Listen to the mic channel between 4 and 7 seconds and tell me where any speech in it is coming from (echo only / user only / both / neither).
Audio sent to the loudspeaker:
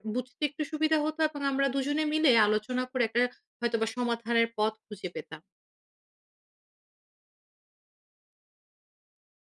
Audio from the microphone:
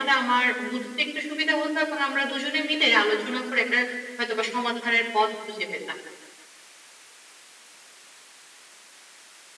echo only